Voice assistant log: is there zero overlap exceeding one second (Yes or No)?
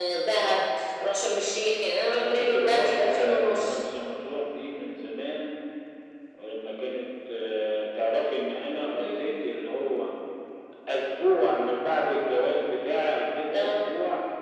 No